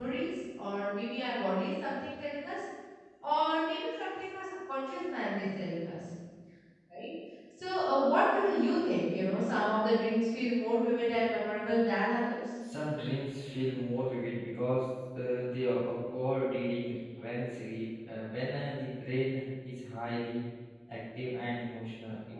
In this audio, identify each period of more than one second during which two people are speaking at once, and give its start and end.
none

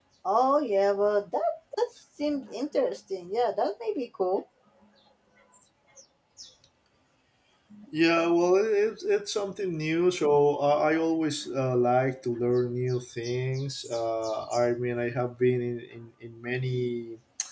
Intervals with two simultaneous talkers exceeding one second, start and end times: none

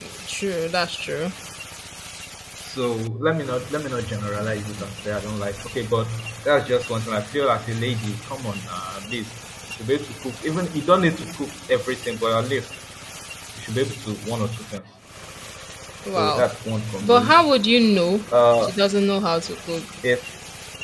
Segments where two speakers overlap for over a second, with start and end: none

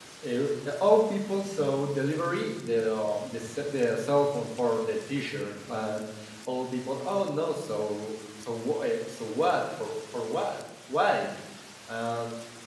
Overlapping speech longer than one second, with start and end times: none

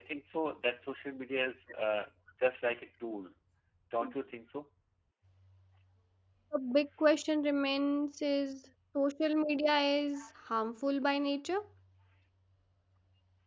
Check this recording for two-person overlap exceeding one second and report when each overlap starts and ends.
none

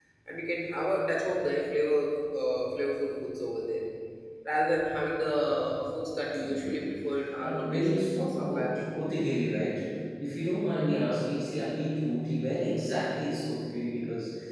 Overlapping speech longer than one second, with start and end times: 7.4-9.0

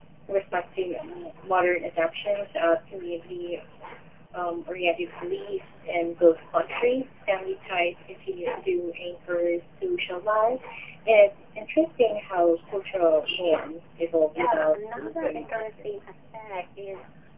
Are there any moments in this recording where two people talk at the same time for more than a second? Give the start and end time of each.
14.3-16.1

